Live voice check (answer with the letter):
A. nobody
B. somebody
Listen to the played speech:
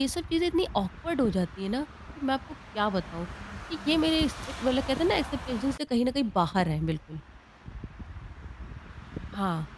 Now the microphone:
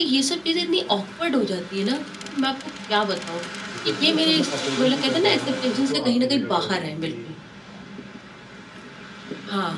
B